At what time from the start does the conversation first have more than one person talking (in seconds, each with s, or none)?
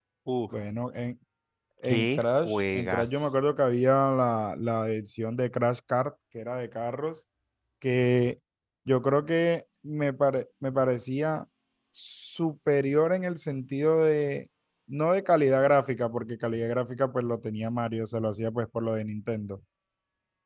1.8 s